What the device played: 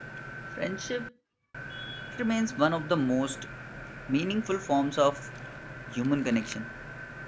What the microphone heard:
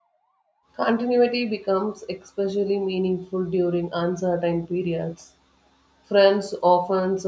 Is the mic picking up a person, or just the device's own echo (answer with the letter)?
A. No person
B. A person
B